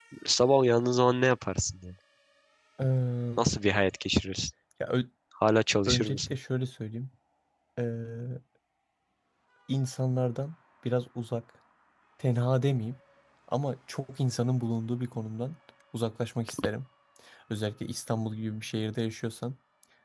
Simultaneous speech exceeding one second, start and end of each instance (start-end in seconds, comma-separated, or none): none